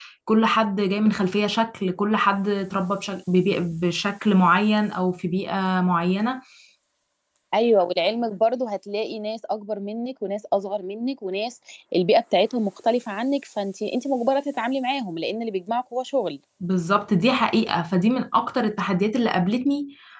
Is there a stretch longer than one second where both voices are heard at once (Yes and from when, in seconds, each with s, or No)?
No